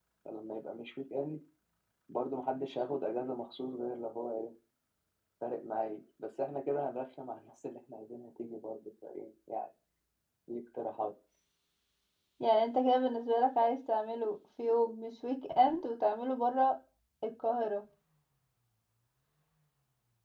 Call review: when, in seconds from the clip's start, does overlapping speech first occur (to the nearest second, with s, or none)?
none